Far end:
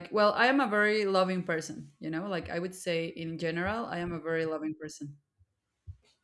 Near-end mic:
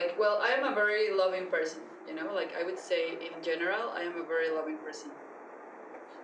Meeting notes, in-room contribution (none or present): none